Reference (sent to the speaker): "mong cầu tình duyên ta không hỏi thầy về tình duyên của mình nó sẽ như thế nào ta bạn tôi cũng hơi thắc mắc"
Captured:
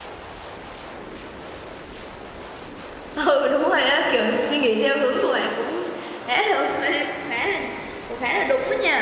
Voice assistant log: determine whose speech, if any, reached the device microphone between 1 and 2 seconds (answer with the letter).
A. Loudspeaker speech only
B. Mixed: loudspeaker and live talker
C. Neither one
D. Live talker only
C